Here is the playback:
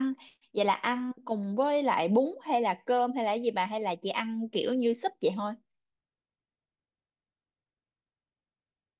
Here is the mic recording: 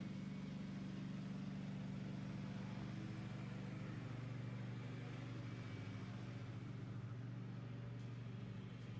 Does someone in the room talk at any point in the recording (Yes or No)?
No